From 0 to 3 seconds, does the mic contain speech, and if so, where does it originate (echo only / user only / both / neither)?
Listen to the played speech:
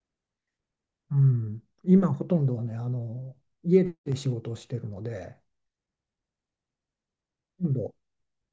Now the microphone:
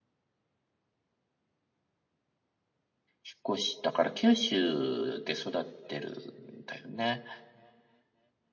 neither